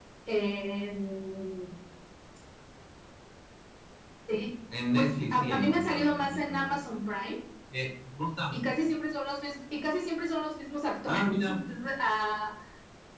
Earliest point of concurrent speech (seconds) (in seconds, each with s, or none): 5.0 s